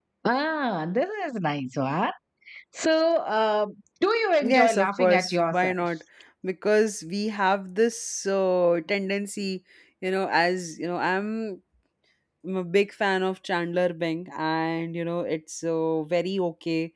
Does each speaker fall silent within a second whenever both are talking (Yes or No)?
No